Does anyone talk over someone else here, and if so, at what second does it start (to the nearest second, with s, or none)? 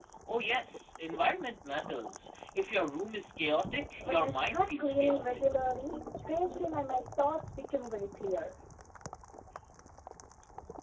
4 s